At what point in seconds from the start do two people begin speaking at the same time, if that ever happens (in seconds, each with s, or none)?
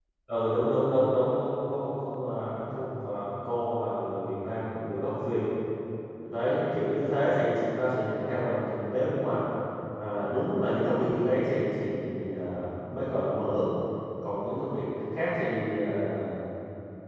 none